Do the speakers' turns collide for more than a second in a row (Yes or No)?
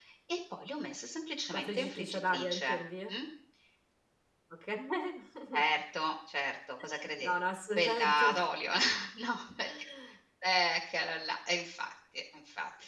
Yes